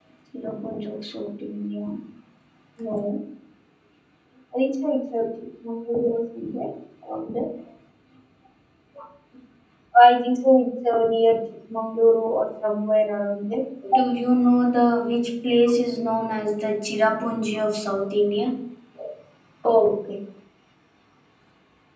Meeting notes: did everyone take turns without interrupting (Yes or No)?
Yes